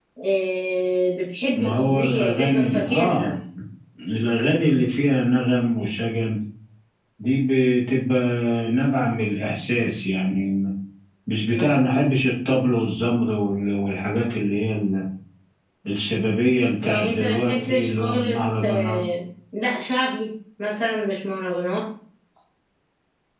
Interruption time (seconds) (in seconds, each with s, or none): 1.5 s